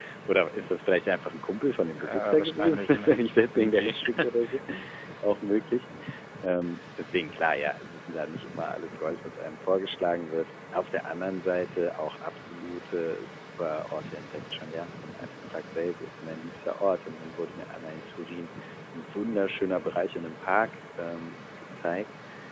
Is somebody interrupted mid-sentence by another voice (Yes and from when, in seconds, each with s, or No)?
Yes, from 2.0 s